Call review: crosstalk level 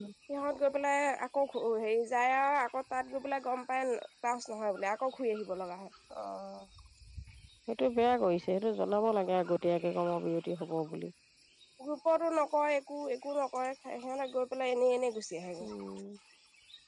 none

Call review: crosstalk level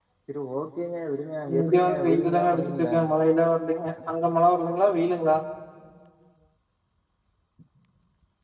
present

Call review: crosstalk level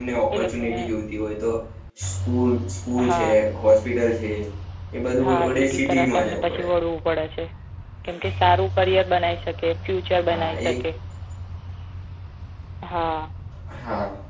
present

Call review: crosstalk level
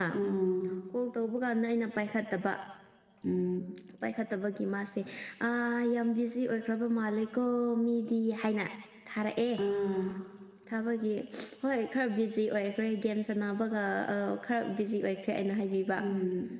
none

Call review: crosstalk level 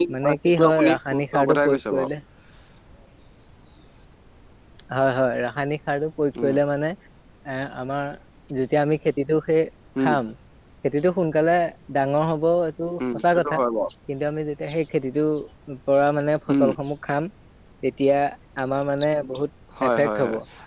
present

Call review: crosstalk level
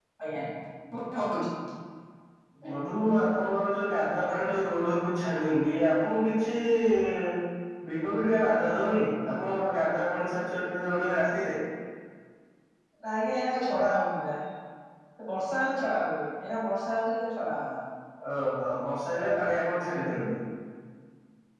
none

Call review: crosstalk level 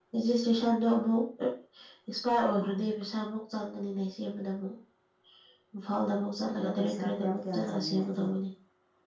present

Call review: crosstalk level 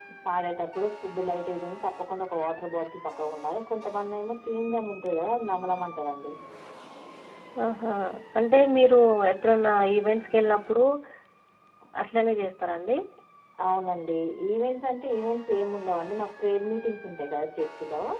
none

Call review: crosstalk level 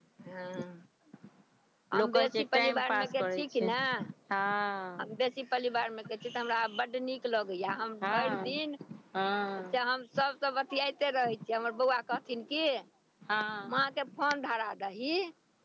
present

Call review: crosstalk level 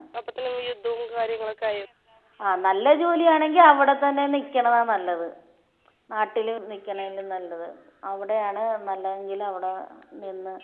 none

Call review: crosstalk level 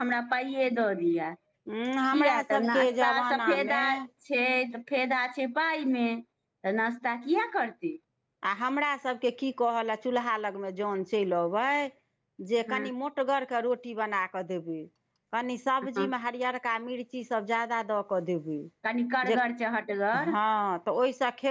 present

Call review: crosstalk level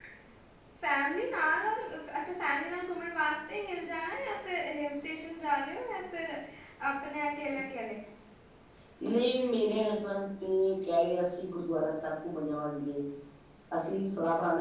none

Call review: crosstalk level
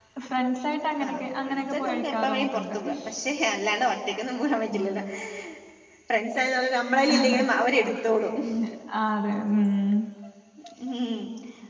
present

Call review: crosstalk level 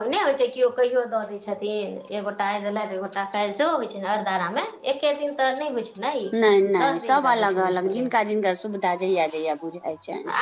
present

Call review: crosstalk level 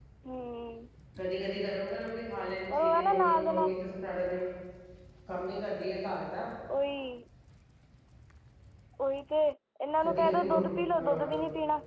present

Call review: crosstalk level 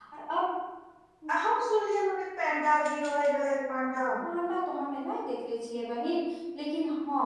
none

